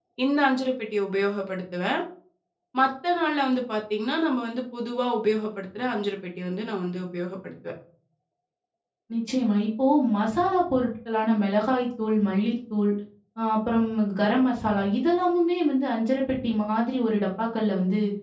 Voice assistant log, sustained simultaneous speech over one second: none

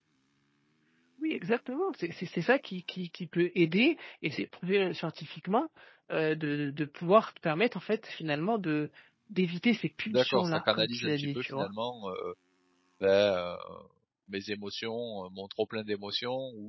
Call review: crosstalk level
present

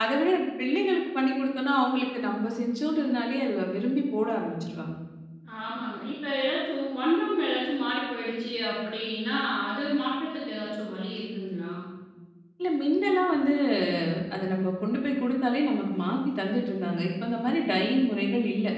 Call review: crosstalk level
none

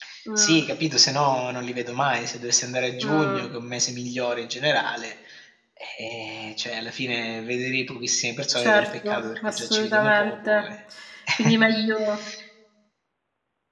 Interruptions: present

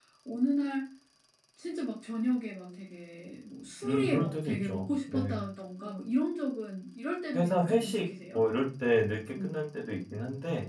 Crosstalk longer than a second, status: present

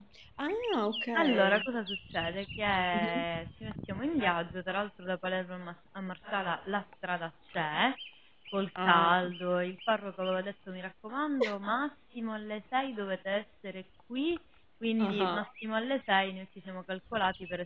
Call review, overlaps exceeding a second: none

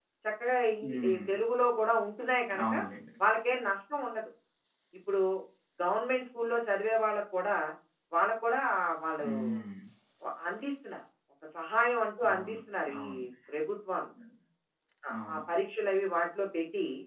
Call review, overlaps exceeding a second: none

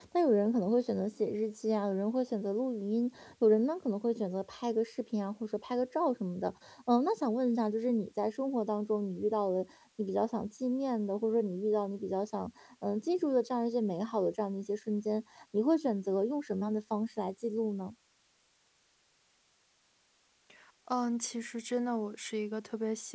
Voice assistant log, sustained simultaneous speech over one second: none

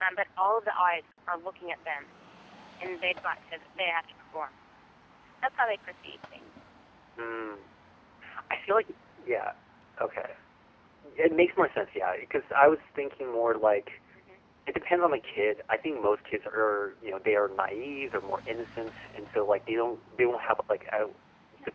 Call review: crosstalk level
none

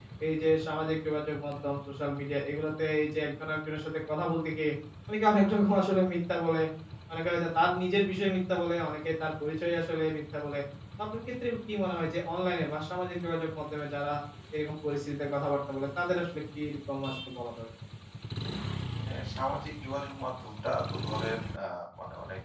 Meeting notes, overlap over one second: none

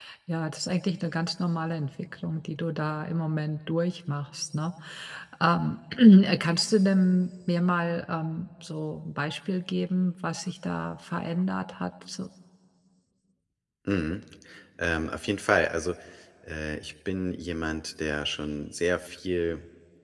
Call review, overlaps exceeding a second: none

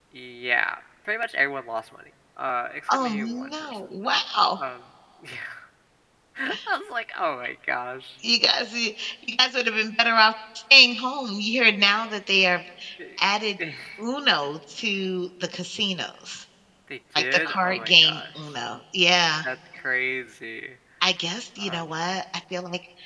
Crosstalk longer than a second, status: present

